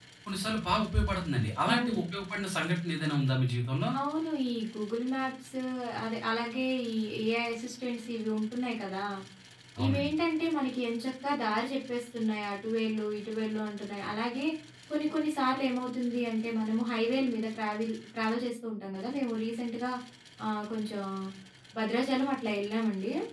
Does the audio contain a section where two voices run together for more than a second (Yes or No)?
No